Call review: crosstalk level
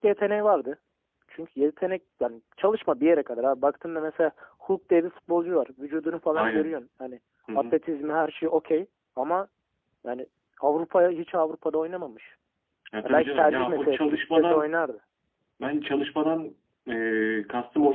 present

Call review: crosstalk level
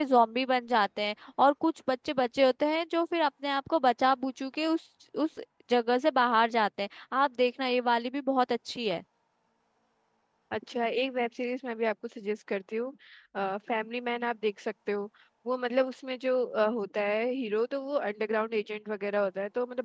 none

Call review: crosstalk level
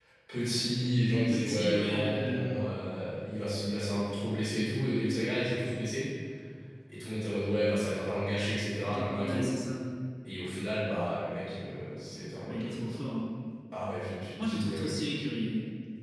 present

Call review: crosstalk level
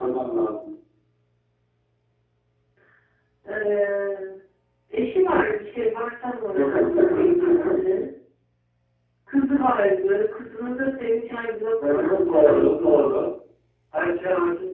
present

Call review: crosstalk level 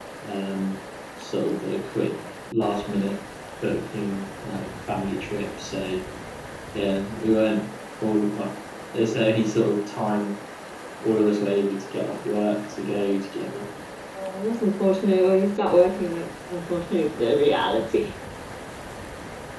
none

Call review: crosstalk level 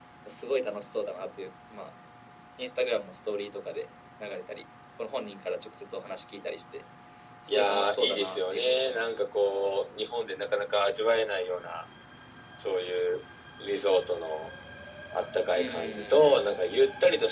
present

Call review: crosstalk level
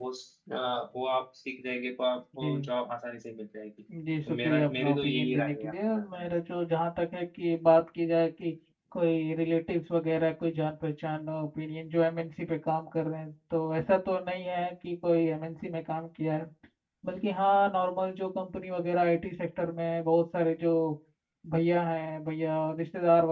present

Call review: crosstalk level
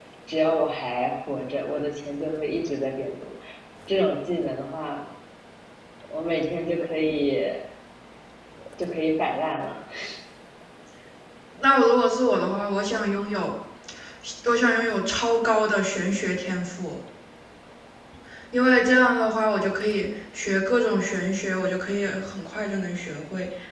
none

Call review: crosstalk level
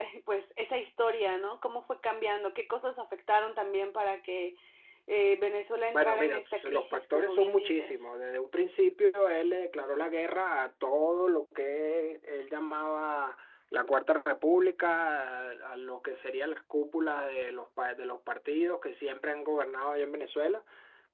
present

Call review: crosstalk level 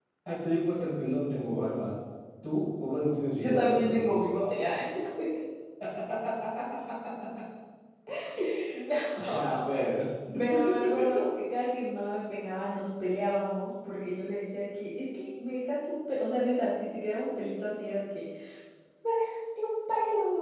present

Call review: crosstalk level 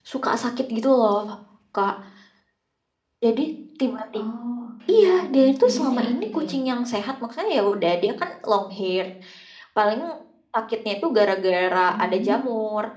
present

